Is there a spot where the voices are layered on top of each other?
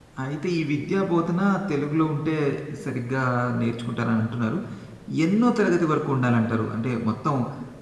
No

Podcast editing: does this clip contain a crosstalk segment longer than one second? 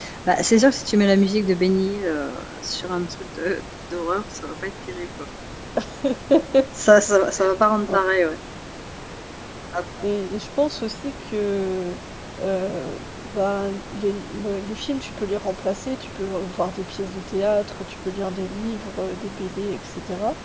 No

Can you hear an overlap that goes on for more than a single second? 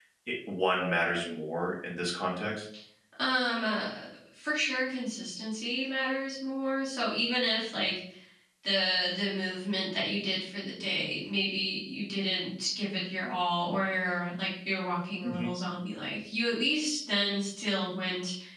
No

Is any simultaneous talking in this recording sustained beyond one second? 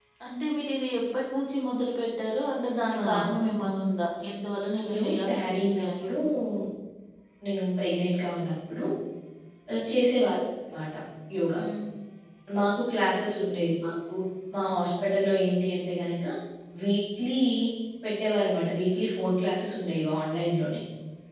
Yes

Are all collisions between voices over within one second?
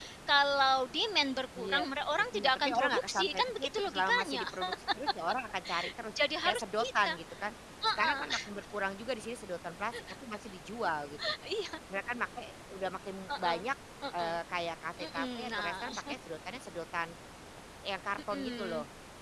No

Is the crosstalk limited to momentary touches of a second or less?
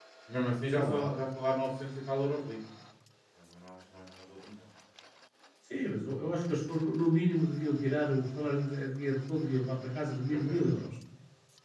Yes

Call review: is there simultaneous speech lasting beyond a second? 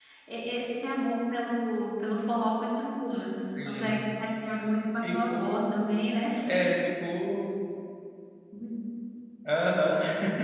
No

